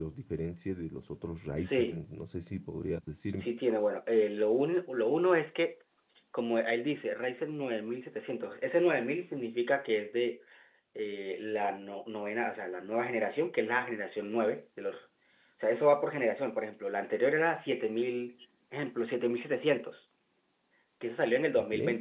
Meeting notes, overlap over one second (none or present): none